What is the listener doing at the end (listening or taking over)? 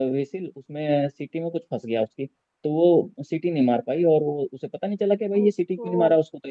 listening